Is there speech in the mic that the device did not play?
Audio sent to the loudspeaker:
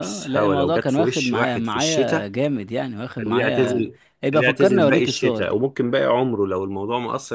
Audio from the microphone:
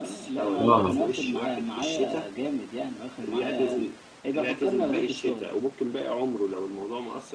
Yes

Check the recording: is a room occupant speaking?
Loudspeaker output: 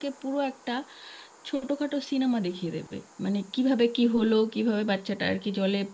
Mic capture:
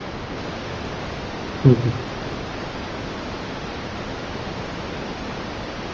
Yes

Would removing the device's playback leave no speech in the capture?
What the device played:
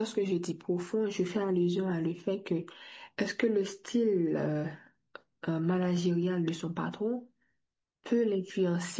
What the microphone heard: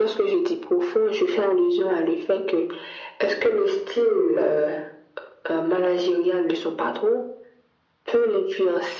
Yes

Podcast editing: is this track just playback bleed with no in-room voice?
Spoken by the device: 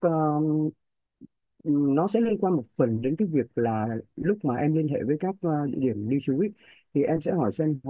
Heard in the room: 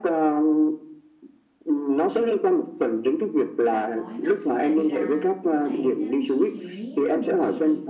No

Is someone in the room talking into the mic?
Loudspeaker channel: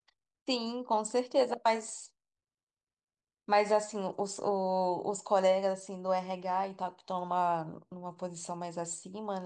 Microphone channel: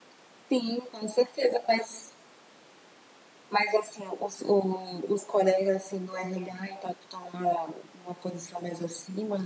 No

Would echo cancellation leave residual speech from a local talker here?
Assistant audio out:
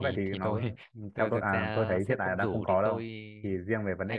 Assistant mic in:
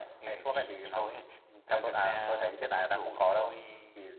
No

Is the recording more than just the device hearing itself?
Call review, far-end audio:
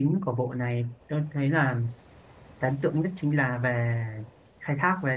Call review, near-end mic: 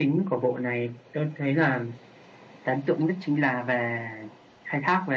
No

